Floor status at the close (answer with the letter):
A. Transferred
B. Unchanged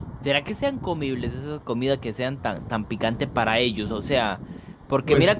B